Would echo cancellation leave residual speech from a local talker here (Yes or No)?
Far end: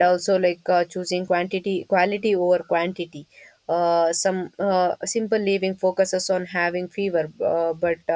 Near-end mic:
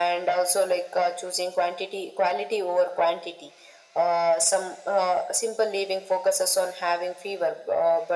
No